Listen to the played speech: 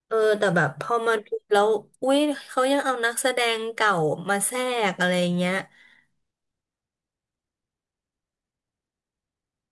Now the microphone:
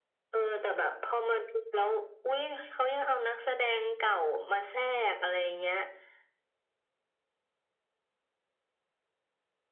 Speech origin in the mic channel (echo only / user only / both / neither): echo only